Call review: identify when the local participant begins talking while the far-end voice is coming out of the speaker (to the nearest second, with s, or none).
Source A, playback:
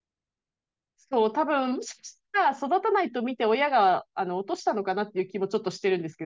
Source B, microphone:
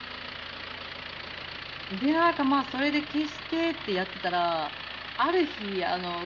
2 s